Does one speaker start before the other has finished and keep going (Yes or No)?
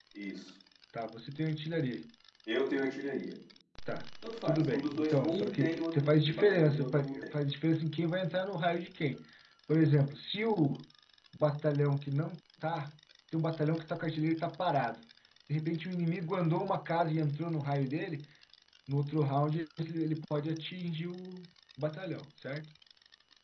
Yes